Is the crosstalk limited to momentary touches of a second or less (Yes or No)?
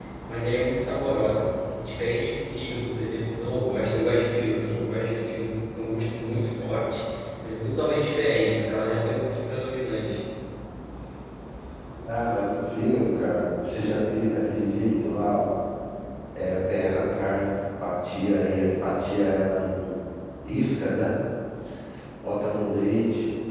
Yes